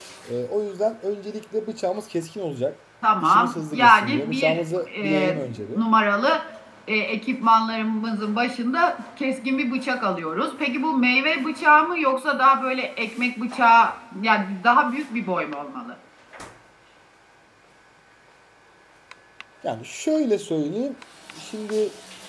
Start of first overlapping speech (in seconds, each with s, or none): 3.0 s